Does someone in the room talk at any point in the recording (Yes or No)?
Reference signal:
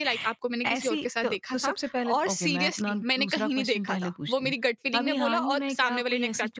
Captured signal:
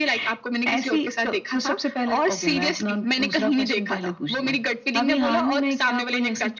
No